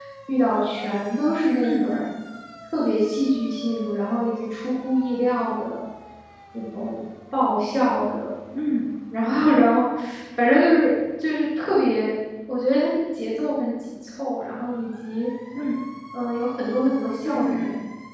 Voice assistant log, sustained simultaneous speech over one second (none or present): none